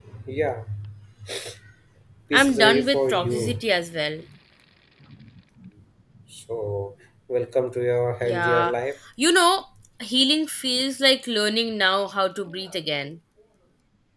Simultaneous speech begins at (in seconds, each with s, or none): 2.3 s